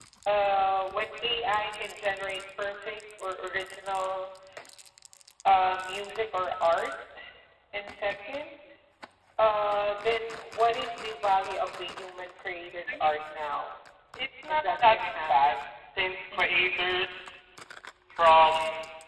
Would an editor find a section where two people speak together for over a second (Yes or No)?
Yes